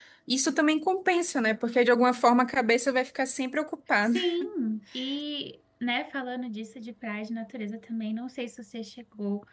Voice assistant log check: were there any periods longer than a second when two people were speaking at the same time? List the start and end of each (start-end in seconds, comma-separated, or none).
none